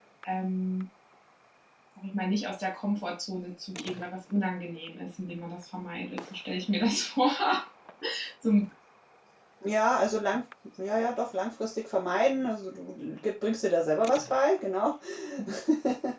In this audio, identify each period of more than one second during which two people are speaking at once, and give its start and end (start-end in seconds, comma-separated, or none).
none